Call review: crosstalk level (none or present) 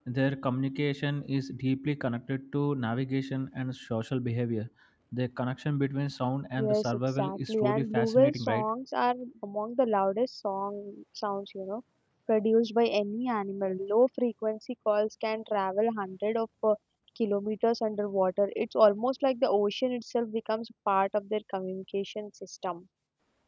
present